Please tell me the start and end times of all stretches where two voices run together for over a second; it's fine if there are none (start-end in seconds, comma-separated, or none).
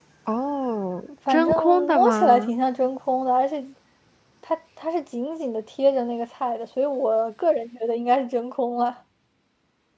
1.3-2.5